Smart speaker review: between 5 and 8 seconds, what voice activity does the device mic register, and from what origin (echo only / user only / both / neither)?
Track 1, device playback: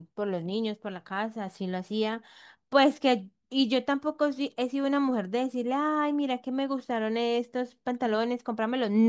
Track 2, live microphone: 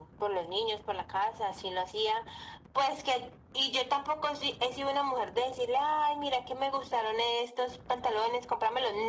echo only